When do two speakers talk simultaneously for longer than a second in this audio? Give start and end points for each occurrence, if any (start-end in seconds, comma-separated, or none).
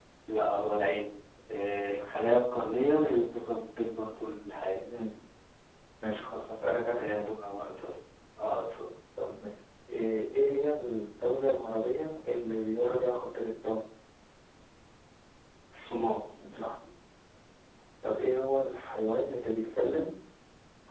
none